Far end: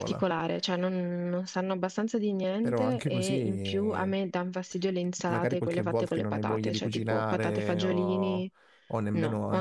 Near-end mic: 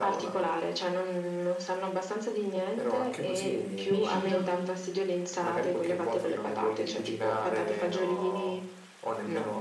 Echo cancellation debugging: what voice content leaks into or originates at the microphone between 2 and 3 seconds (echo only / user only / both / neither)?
echo only